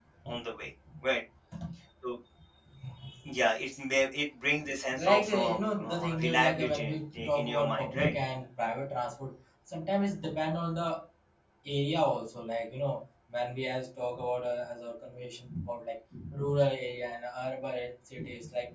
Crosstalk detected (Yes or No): Yes